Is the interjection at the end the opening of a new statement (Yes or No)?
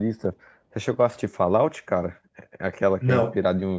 No